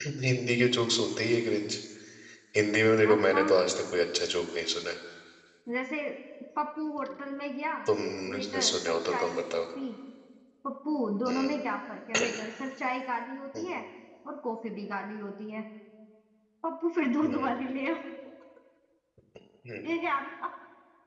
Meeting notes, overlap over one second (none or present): present